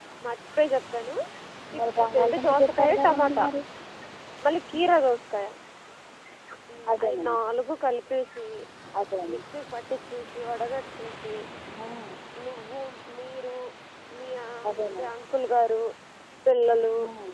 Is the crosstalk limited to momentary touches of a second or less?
No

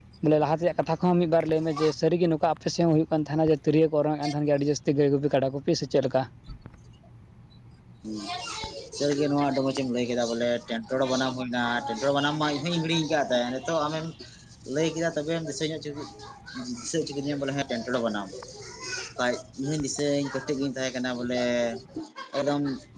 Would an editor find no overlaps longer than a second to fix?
Yes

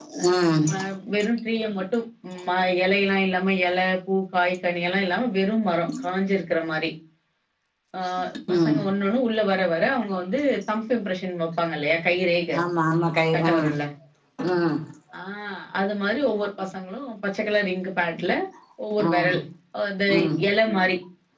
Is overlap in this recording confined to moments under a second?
Yes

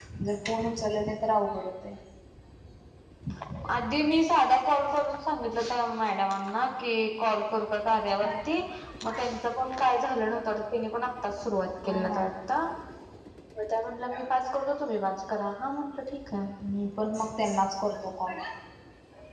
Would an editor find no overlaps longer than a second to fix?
Yes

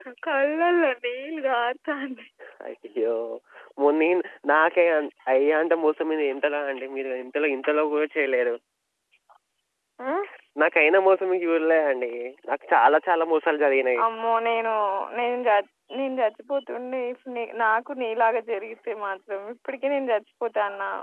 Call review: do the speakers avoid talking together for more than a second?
Yes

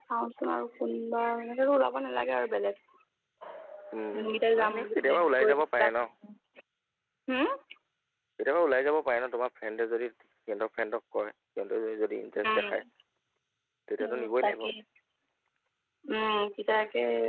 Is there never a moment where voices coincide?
No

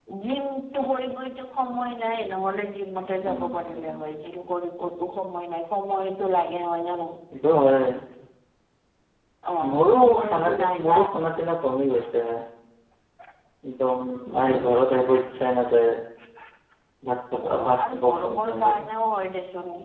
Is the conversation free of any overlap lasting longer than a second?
No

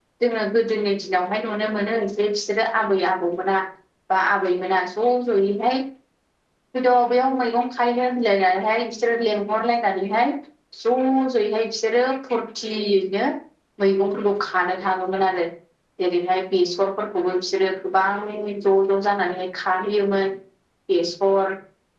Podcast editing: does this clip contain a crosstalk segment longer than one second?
No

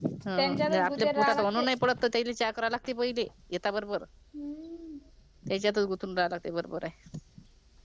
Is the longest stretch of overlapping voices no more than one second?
No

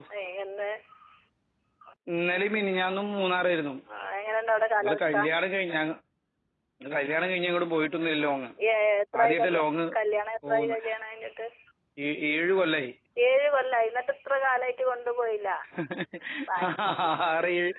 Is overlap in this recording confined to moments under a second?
Yes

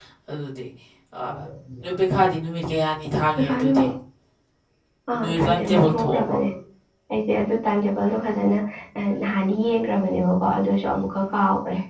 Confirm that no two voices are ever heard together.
No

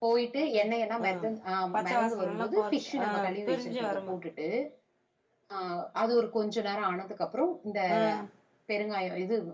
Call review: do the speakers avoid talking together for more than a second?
No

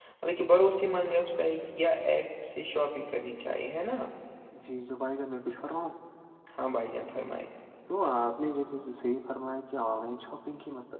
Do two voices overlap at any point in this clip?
No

